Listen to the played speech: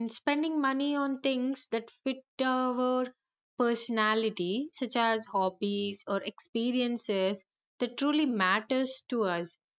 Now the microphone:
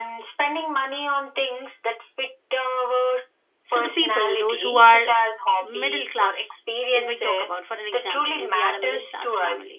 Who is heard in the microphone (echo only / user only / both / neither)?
both